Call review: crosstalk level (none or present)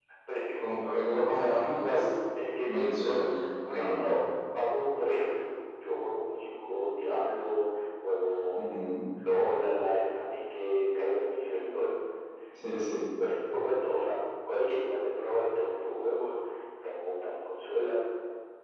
present